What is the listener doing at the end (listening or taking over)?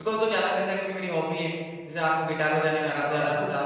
taking over